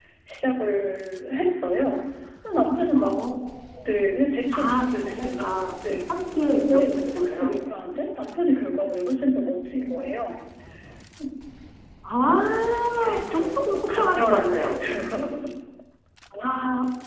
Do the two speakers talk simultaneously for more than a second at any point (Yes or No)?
Yes